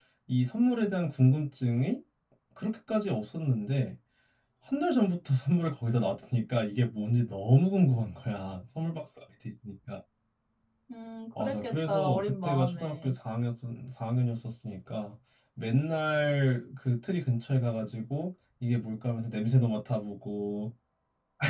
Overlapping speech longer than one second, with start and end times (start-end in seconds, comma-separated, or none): 11.4-13.1